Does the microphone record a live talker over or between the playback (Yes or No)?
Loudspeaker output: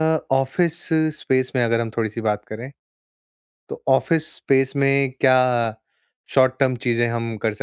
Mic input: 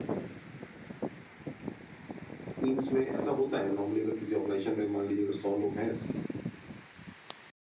Yes